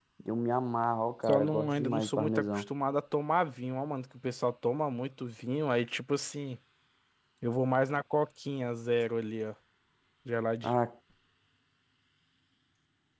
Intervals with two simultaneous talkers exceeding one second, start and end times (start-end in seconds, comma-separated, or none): 1.3-2.7